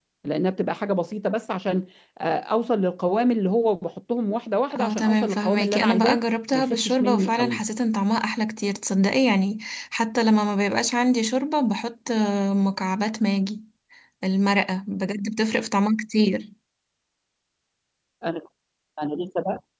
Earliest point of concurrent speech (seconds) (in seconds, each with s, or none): 4.7 s